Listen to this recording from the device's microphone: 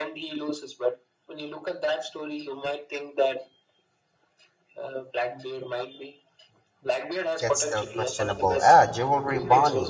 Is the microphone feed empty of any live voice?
No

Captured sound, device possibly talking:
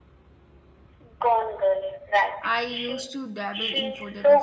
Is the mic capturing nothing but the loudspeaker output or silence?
No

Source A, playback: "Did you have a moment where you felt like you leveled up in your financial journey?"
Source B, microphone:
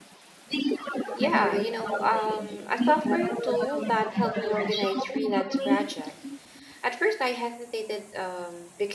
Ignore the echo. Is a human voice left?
Yes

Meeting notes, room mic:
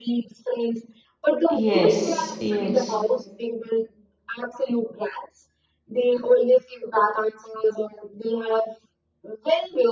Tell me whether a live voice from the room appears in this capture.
Yes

